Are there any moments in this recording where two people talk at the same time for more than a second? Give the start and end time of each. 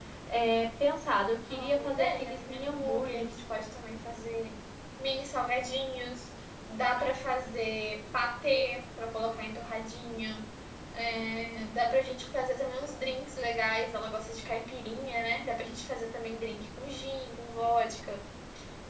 1.5-3.3

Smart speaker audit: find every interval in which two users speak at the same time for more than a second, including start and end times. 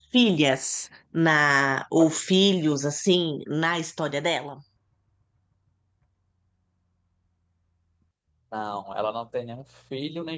none

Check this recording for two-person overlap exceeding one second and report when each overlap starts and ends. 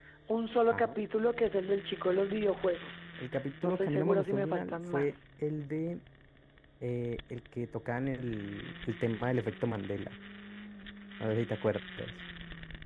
3.6-5.2

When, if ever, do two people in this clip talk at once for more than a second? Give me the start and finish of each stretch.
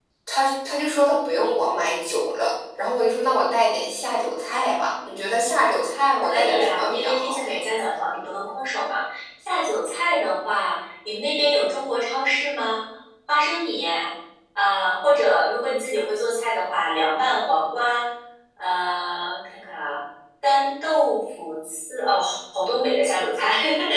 6.0-7.5

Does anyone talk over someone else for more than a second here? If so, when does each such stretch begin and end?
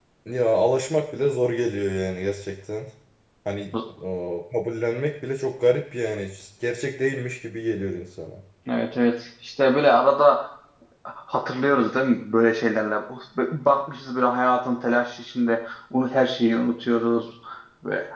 none

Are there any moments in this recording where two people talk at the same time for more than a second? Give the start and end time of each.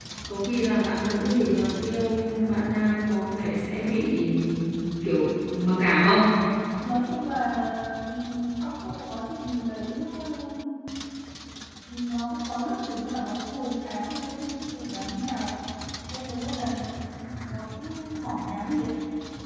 none

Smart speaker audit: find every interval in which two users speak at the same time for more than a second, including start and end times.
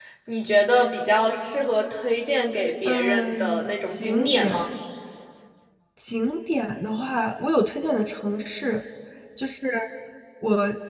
2.8-4.7

